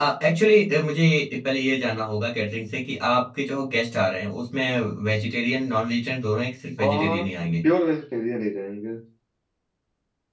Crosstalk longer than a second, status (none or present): none